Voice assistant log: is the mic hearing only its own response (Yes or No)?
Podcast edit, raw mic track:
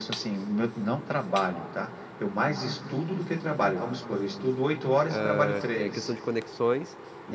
No